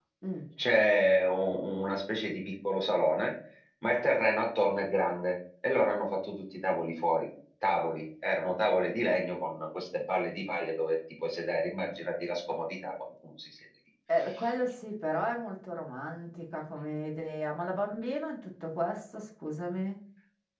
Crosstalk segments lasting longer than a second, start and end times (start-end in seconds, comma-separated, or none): none